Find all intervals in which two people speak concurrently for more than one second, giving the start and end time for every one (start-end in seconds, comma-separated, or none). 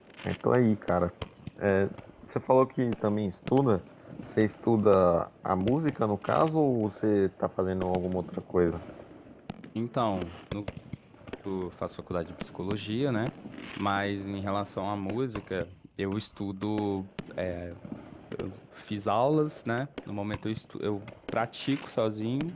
none